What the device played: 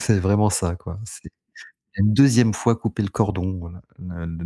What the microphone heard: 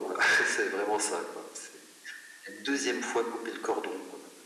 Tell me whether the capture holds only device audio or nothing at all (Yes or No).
Yes